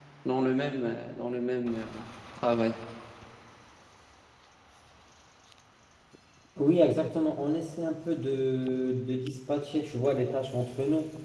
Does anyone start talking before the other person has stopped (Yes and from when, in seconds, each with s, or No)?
No